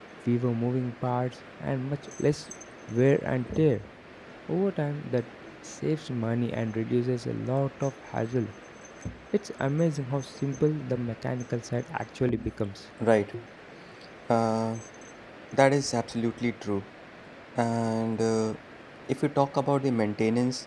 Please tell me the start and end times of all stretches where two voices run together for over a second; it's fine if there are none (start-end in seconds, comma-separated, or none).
none